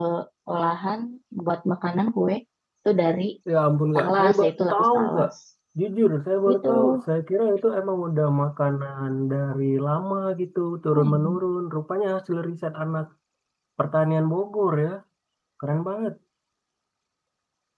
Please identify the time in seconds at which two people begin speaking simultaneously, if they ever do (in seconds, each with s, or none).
3.9 s